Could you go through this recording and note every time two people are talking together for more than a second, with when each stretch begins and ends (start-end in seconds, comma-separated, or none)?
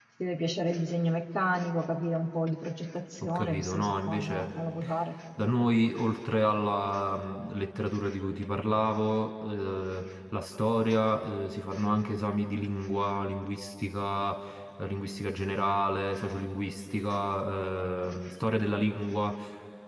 3.3-4.6